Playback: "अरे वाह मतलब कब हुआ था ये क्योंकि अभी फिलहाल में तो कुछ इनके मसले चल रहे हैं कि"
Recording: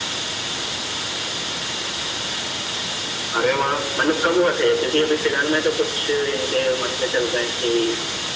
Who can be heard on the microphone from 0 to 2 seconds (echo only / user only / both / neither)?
neither